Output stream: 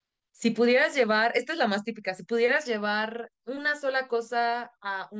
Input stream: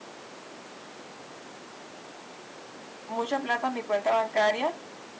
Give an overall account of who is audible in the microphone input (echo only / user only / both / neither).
user only